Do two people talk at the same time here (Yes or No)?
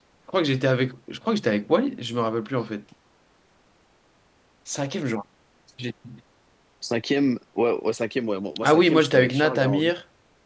Yes